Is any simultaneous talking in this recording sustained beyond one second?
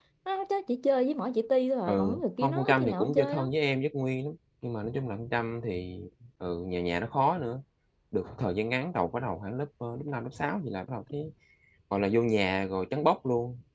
Yes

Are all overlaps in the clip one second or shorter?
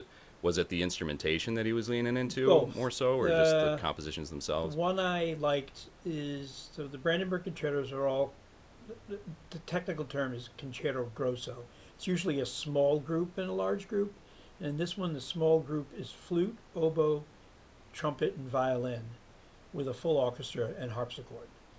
No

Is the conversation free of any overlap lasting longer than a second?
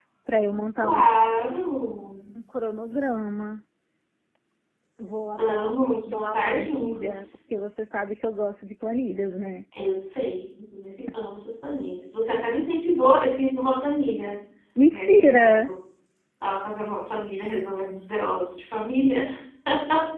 No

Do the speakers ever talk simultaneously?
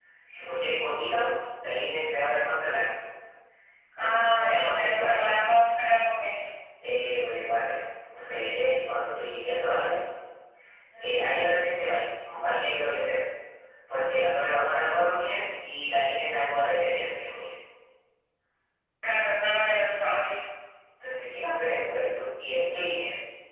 Yes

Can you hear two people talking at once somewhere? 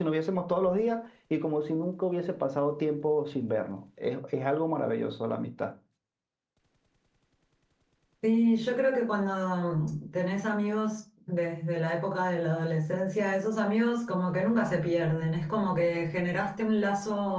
No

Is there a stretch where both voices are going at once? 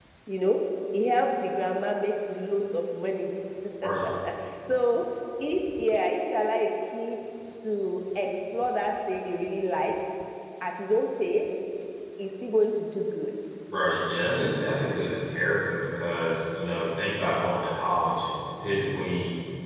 No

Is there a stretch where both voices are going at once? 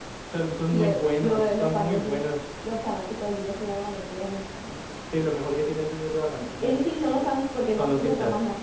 Yes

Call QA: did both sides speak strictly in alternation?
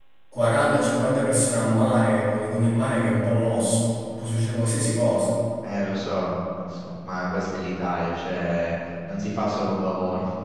Yes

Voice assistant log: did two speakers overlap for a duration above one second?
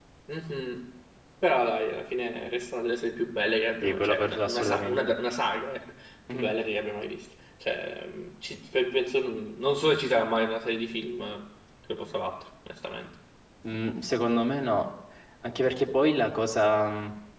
Yes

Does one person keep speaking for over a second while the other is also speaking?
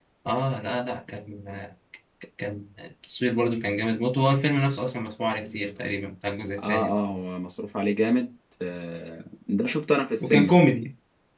No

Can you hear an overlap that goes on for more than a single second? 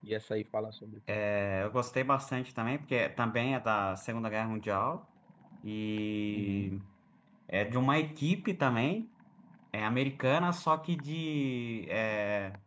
No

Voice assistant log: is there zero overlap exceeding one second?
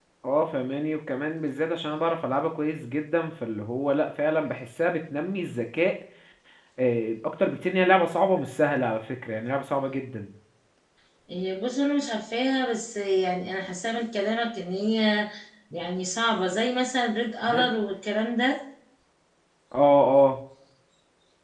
Yes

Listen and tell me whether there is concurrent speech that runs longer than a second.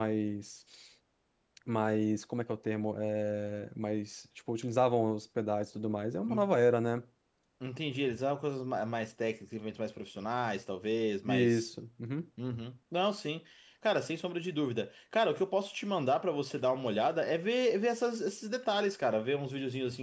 No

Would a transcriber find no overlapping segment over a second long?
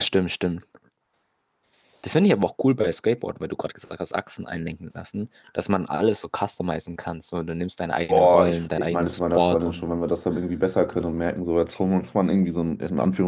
No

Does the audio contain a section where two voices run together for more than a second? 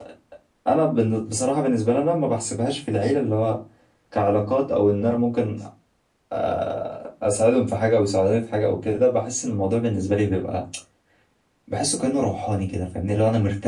No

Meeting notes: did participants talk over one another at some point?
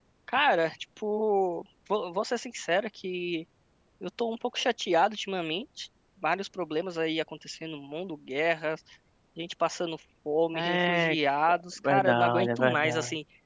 Yes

